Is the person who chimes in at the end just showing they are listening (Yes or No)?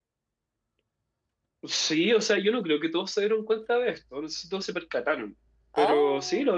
Yes